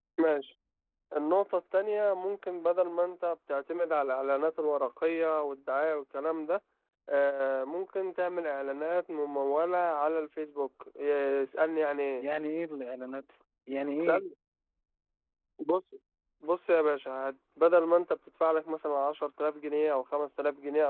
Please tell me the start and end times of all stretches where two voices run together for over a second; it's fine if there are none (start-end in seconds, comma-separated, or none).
none